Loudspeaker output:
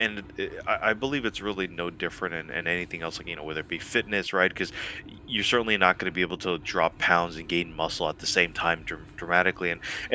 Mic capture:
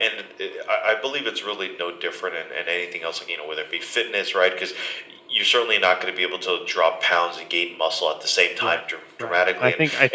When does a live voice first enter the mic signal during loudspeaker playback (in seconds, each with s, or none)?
8.6 s